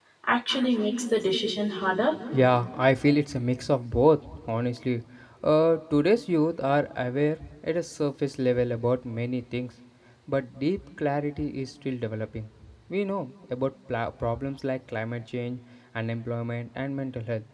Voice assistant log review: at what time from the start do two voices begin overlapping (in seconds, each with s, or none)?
none